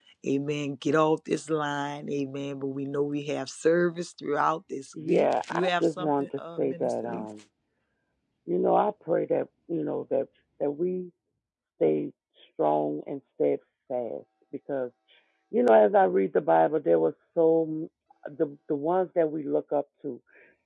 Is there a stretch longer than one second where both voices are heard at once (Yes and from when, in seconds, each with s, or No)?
Yes, from 5.0 s